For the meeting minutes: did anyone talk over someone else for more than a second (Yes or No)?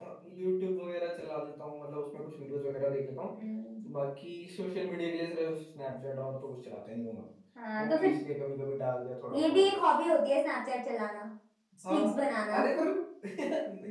No